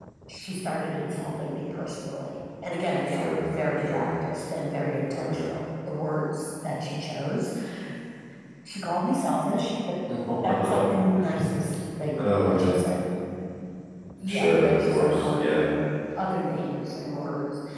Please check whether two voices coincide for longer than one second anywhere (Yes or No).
Yes